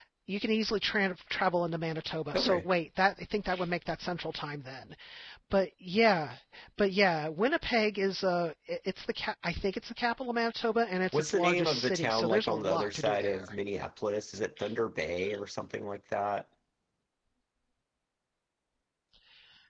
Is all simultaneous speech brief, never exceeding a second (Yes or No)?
No